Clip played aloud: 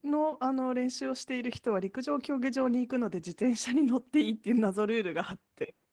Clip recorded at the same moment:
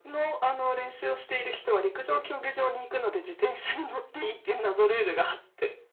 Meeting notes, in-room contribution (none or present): none